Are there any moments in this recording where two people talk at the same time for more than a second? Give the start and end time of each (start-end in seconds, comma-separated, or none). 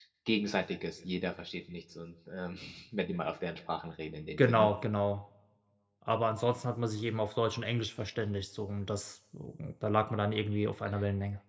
none